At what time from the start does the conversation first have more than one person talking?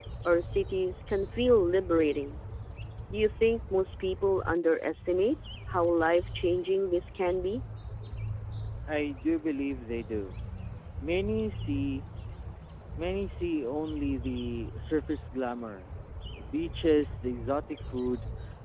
none

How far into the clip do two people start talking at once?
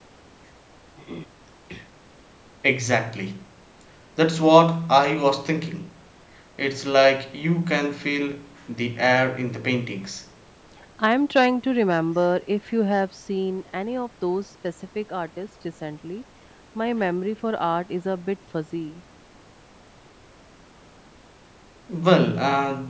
none

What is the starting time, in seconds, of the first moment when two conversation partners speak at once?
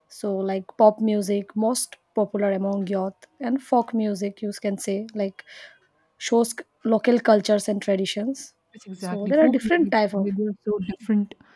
9.0 s

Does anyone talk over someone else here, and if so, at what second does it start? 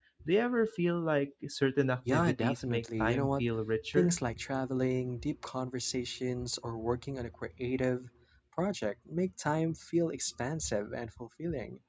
2.1 s

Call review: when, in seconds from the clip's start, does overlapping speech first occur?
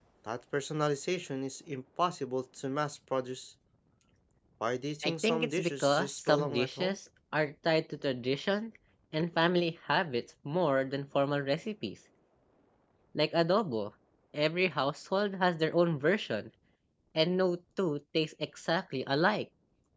5.0 s

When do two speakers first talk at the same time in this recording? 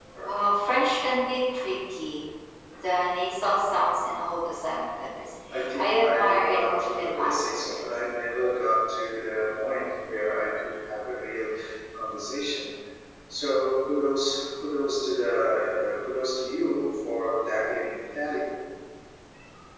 5.8 s

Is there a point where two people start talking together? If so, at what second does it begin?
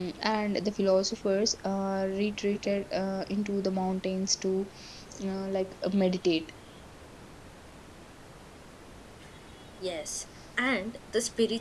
none

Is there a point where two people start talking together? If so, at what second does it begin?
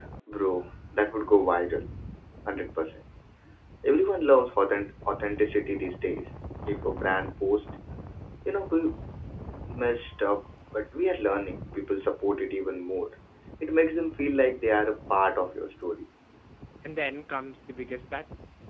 none

